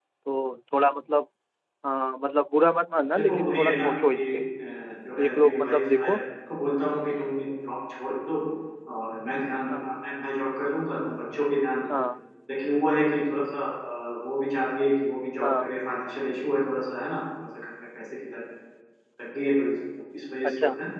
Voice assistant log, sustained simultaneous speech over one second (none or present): present